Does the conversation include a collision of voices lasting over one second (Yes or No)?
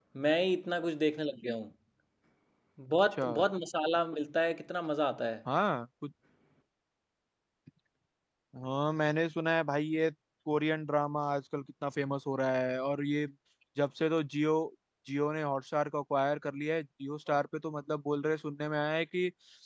No